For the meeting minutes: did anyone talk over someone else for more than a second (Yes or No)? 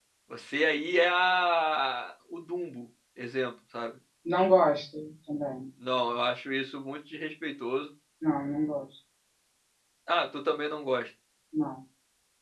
No